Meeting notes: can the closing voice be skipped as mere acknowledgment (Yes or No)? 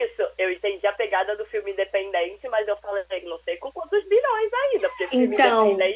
Yes